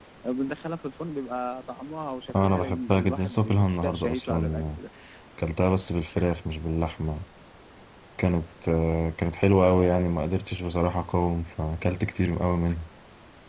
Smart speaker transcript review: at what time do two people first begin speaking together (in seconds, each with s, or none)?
2.3 s